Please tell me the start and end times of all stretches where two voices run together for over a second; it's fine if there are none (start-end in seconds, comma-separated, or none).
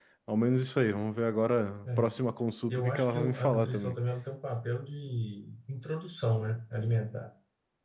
2.7-4.0